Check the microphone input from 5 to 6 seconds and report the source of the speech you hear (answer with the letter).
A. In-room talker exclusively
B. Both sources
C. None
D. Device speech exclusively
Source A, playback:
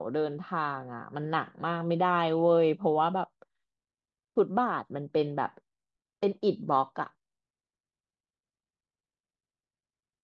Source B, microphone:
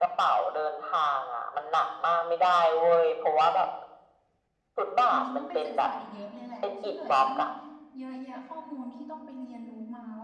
B